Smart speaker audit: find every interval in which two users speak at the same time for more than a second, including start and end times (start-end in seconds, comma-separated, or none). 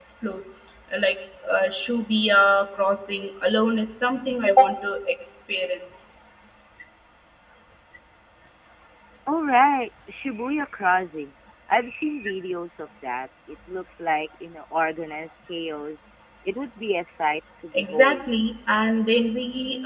none